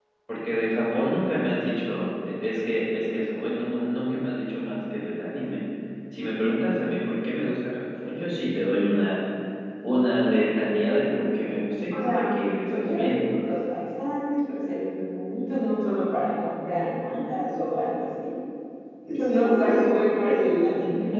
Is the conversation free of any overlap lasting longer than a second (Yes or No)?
No